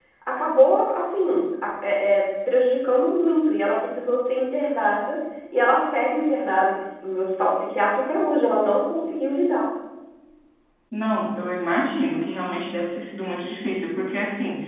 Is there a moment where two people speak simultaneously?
No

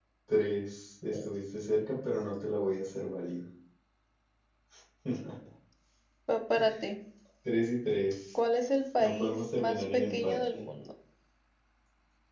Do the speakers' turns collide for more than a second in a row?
Yes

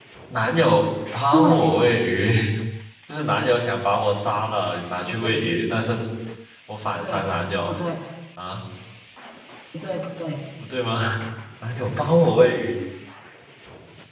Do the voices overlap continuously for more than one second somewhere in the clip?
No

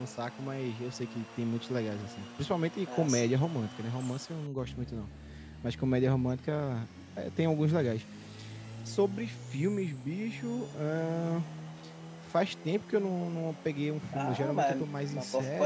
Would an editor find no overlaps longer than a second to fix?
No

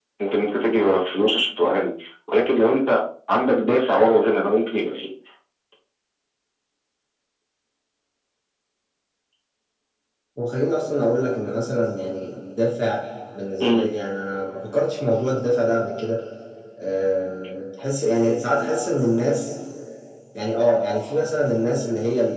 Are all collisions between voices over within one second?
Yes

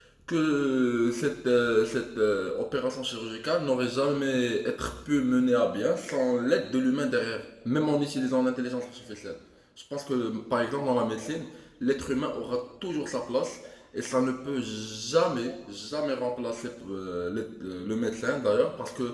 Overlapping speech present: No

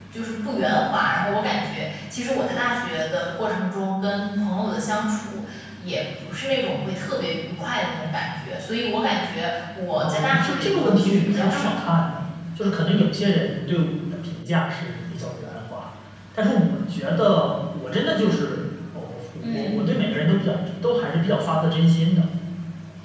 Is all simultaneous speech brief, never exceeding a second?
No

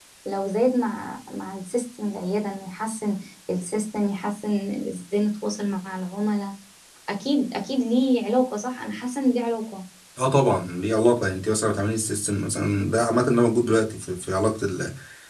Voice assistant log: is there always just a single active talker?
Yes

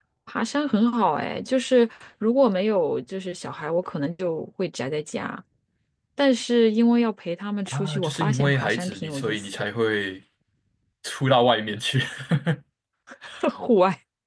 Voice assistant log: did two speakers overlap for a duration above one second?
Yes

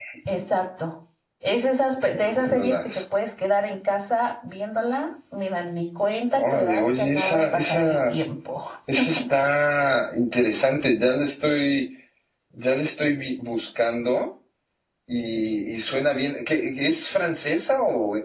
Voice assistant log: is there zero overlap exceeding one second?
No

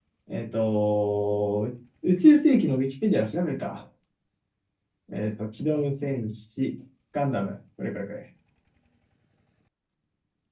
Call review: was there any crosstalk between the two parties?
No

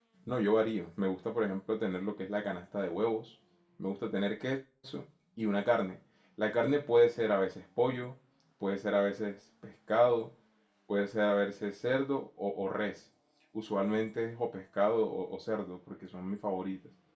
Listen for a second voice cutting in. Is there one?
No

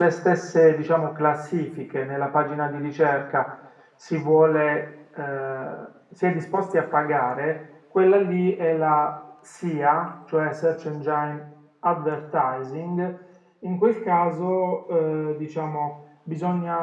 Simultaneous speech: No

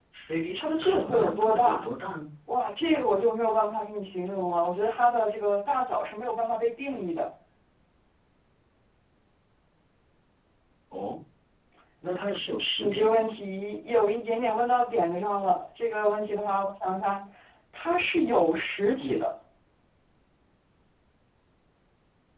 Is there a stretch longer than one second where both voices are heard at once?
Yes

